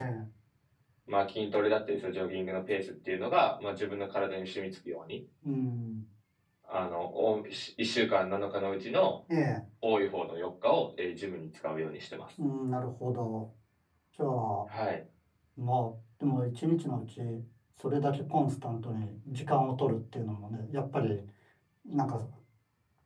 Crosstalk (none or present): none